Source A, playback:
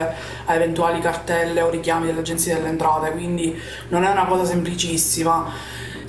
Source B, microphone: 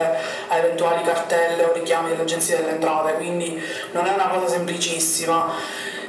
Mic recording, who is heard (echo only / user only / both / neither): echo only